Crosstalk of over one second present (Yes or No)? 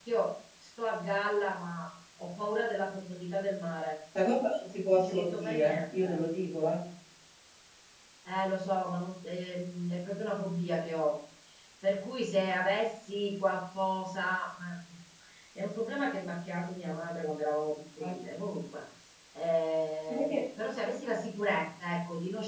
Yes